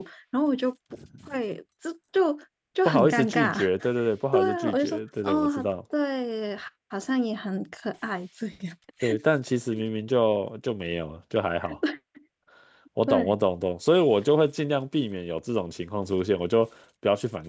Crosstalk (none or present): present